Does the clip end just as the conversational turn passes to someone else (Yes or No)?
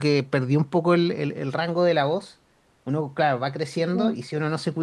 No